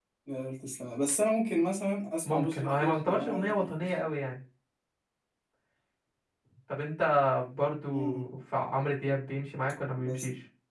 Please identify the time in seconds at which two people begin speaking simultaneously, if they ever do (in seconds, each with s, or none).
2.2 s